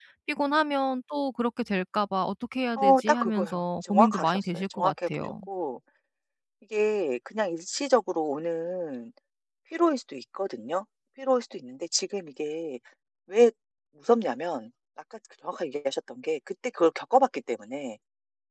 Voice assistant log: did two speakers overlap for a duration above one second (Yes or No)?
Yes